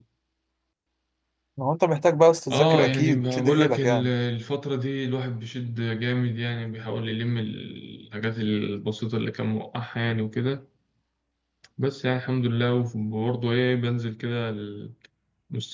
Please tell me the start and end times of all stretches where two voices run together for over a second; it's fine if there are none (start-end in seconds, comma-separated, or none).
2.5-4.1